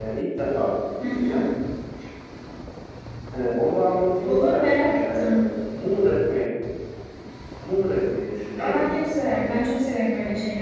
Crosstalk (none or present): present